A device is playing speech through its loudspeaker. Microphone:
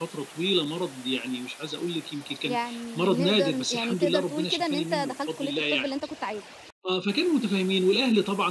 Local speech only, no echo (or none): يعني نقدر ن يعني تقدر تقول كده إن أنت دخلت كلية الطب اللي أنت كنت عايزها.